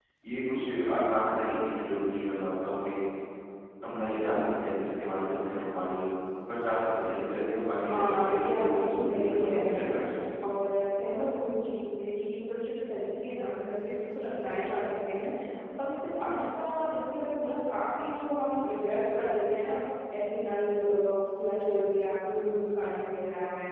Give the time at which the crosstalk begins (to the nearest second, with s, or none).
8 s